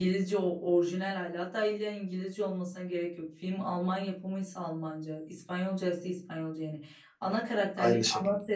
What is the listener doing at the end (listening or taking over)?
listening